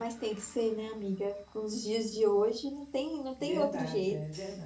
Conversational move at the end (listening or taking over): taking over